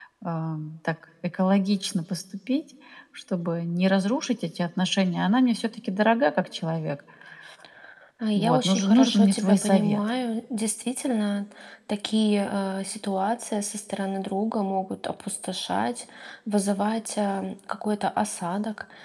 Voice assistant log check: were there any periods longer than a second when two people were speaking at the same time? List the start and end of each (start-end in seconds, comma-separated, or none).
8.4-10.0